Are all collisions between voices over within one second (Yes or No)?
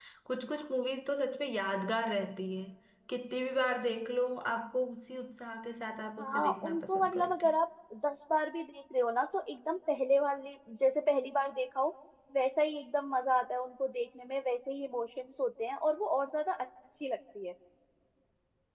No